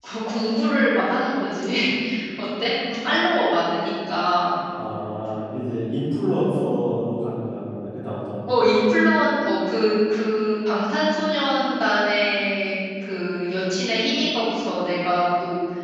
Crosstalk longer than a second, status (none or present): none